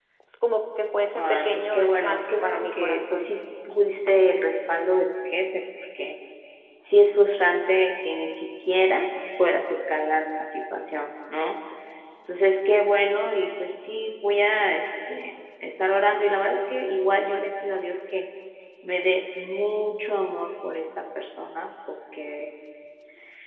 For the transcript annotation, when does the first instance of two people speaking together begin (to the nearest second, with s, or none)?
1 s